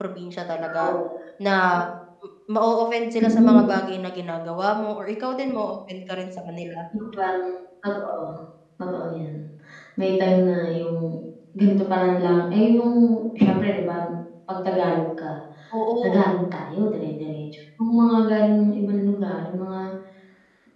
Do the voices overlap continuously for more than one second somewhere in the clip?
No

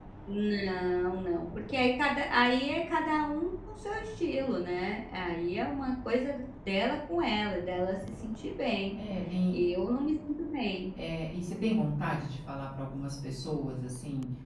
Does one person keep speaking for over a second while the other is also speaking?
No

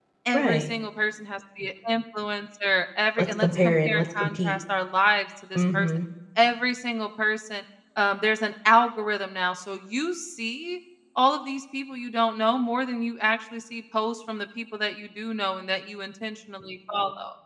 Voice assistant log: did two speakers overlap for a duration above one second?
Yes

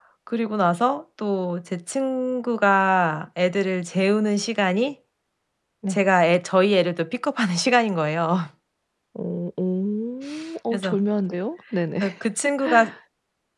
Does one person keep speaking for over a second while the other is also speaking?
No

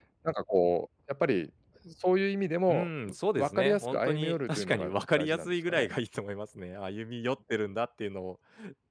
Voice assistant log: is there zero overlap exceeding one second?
No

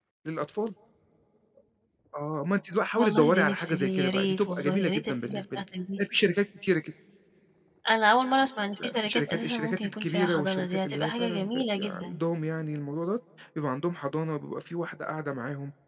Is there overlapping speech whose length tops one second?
Yes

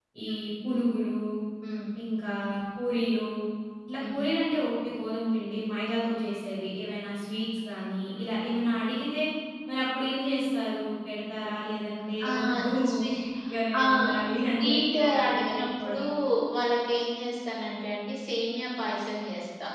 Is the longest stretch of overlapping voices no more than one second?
No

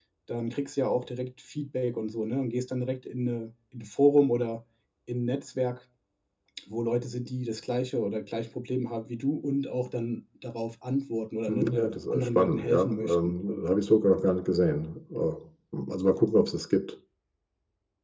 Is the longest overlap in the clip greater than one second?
Yes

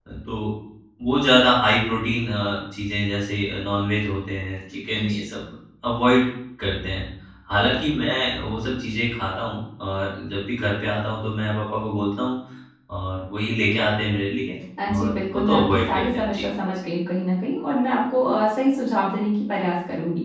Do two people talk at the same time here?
Yes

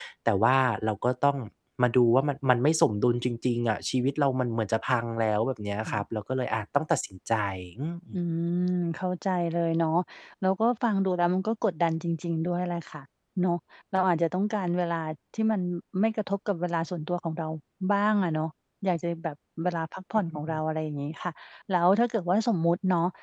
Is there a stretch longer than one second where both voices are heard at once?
No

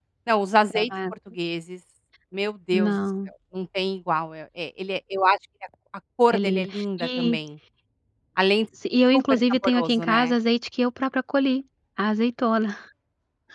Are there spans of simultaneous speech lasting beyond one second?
Yes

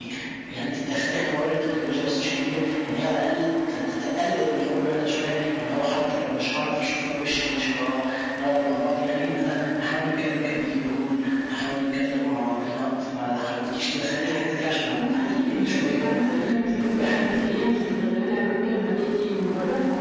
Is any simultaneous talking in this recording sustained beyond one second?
Yes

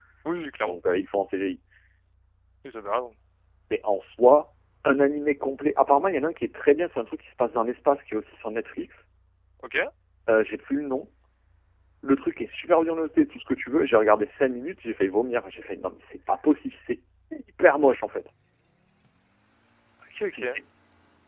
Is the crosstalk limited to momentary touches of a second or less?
Yes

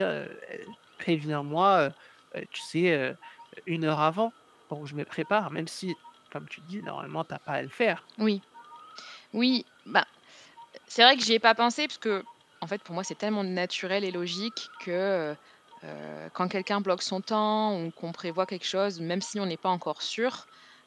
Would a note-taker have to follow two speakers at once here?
No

